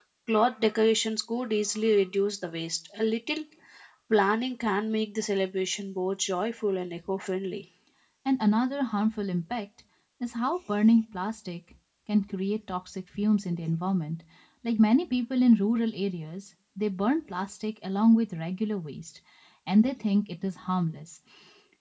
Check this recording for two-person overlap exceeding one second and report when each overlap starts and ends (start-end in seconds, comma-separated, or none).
none